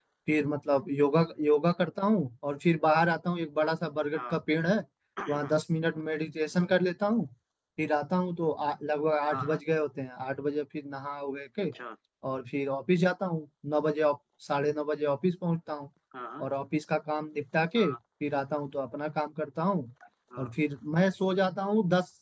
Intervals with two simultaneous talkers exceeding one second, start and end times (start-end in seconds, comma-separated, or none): none